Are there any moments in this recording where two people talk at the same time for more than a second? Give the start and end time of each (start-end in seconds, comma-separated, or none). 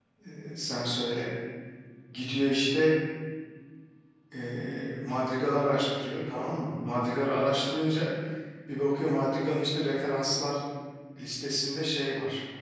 none